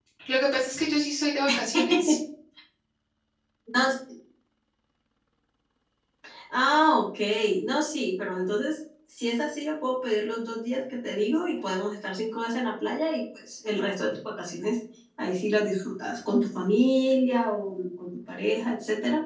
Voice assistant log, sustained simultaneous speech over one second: none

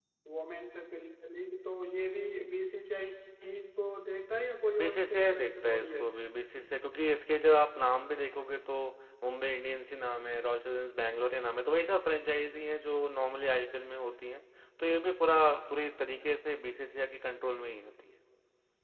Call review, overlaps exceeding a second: present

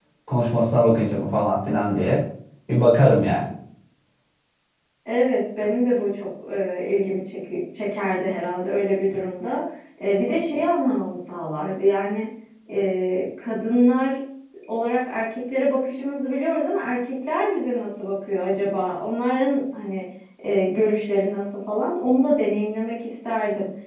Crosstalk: none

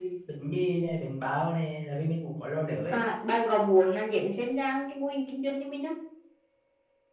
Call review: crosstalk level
none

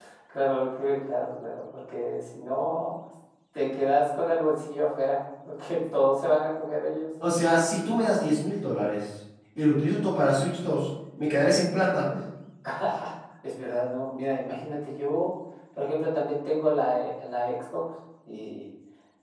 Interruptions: none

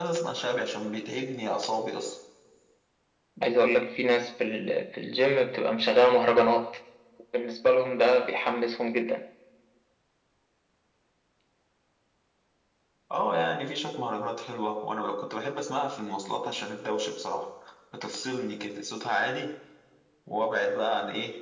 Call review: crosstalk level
none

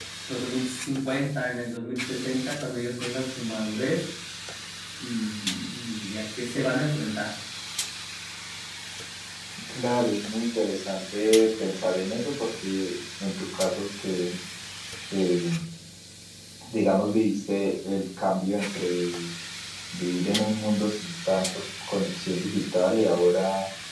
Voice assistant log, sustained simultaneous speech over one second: none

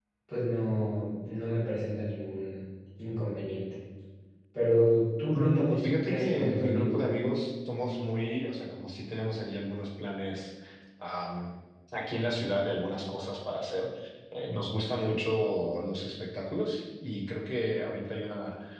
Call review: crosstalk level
present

